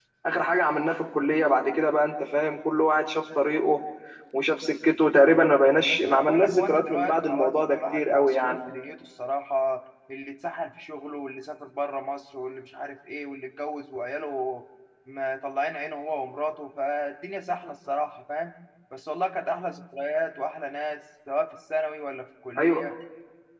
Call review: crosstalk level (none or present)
present